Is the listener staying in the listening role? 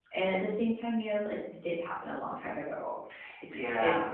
Yes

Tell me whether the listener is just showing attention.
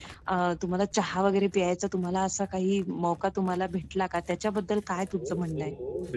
No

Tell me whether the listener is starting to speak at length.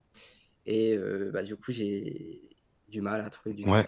Yes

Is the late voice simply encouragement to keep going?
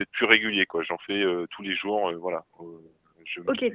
No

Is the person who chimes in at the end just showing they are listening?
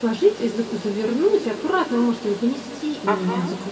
Yes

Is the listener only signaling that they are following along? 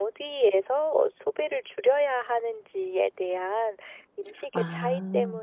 Yes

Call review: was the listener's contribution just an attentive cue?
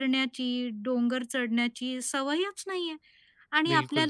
Yes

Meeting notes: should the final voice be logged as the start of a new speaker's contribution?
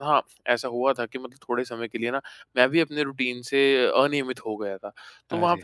No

